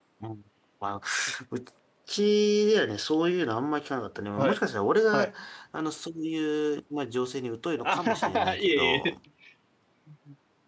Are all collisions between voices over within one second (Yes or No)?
No